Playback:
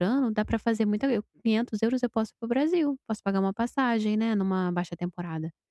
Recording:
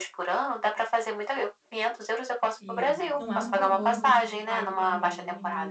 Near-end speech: present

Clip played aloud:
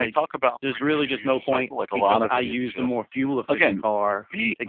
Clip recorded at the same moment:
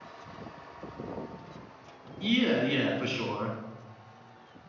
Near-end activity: present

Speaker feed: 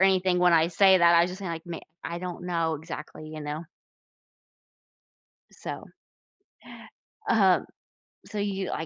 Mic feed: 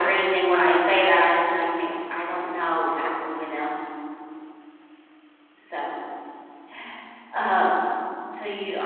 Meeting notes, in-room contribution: none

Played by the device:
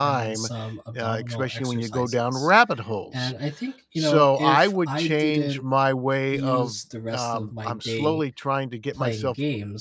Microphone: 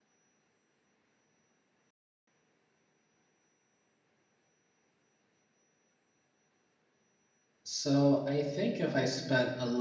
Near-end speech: present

